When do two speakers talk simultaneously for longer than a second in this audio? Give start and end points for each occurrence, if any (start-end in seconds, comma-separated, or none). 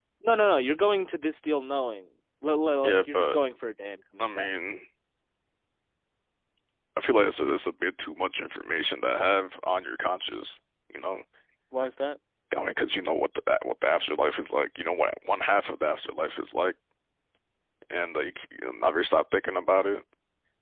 none